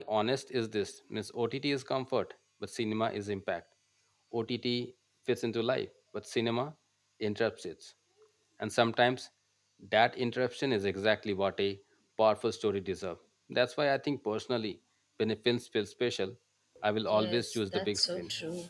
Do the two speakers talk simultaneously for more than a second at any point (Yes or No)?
Yes